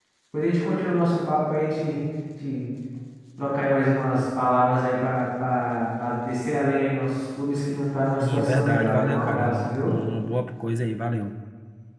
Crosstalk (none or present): present